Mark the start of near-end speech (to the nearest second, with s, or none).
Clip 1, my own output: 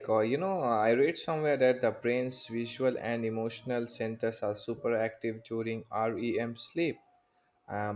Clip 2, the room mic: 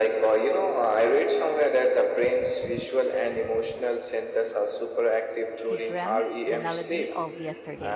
6 s